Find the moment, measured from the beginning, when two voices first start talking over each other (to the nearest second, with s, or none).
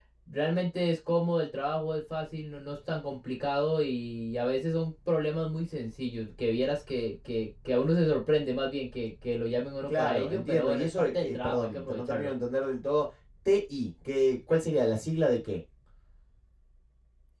10 s